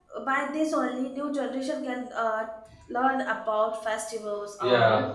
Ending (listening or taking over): listening